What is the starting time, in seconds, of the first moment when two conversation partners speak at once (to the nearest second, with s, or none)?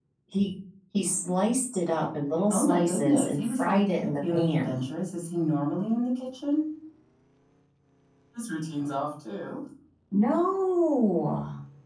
3 s